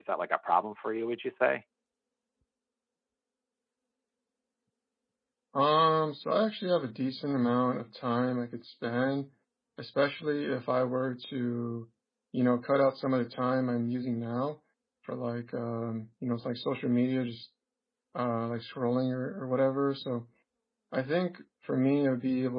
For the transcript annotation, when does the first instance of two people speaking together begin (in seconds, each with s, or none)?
none